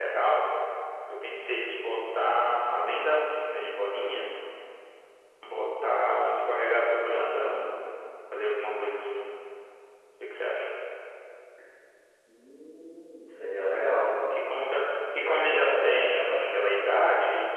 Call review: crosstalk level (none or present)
present